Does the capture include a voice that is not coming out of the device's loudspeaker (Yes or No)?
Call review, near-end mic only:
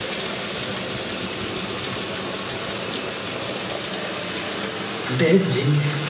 Yes